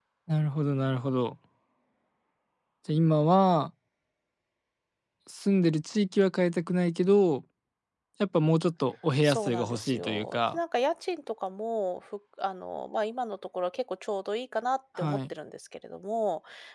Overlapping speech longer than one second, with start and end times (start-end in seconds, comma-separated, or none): 9.2-10.6